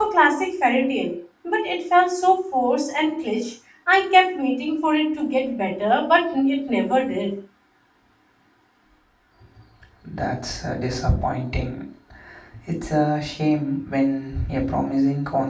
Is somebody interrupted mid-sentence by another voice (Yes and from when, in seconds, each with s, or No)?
No